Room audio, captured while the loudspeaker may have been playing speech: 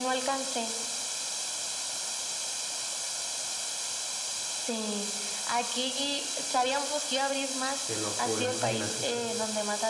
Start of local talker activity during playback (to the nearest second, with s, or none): 8 s